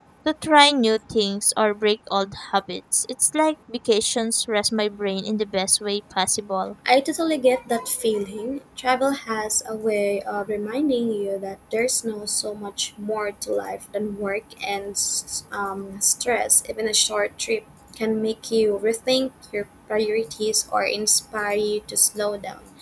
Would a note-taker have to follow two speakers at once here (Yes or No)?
No